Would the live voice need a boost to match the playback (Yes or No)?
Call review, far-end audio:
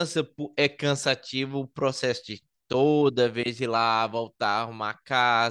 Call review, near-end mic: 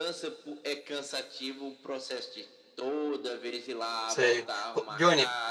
No